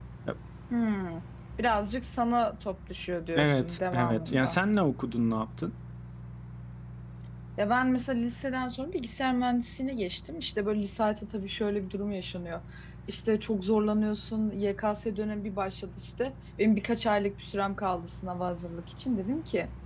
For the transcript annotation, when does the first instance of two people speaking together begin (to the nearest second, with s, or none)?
3 s